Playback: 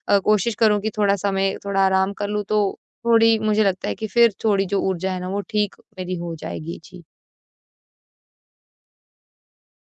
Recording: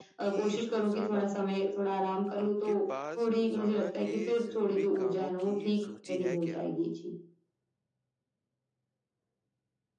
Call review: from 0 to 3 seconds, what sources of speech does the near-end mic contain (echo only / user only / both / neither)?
both